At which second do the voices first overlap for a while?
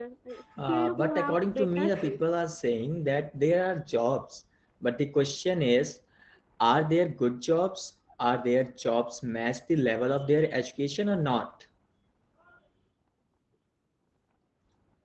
0.7 s

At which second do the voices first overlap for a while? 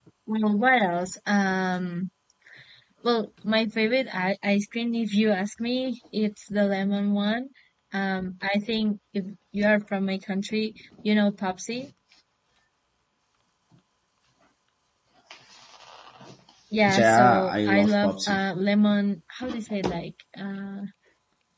16.9 s

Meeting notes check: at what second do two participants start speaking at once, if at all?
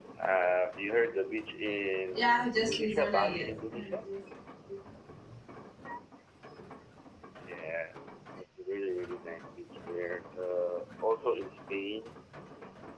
2.1 s

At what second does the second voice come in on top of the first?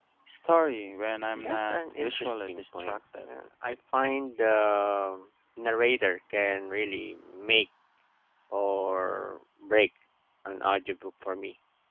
1.3 s

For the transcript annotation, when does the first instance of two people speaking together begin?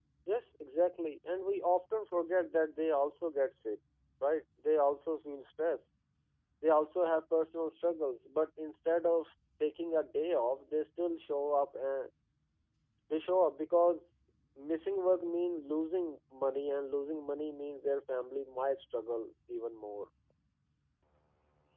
none

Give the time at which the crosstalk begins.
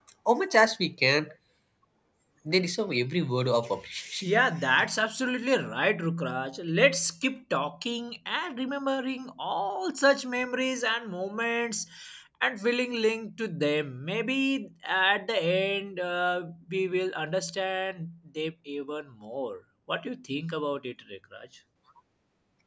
none

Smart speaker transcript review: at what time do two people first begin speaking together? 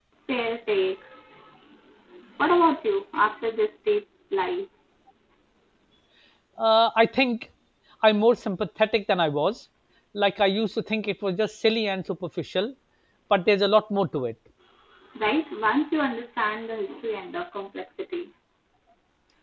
none

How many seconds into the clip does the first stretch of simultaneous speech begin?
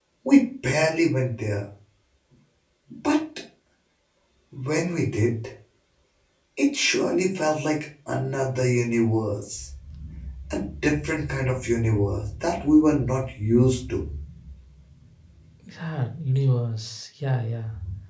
none

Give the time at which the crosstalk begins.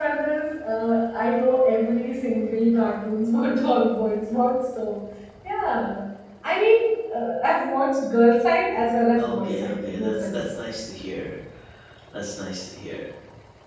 9.2 s

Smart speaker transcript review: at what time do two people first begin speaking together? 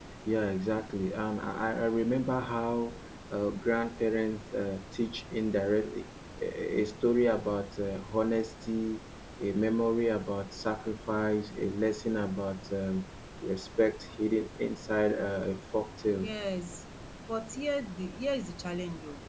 none

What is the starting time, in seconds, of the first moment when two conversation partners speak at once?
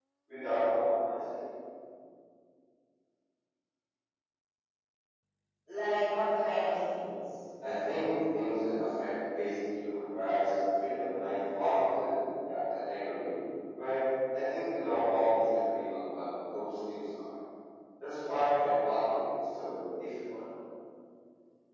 none

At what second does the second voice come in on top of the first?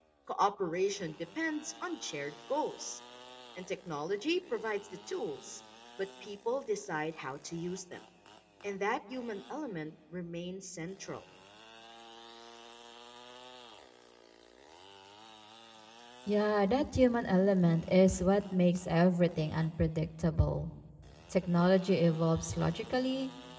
none

